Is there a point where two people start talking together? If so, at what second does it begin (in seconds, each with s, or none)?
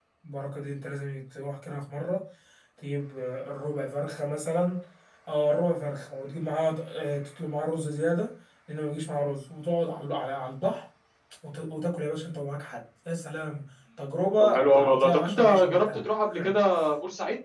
14.4 s